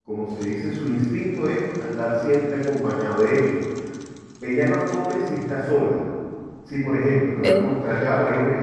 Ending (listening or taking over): listening